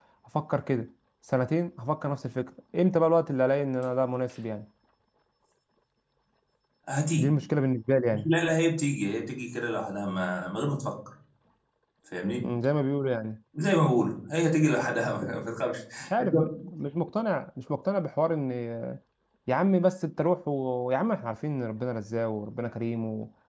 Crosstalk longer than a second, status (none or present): none